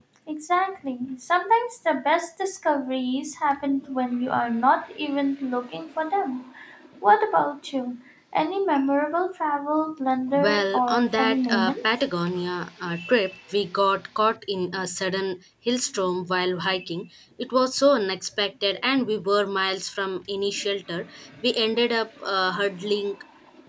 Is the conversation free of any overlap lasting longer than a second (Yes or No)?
No